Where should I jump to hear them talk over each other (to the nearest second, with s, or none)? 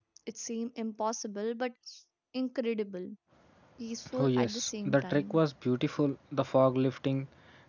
4 s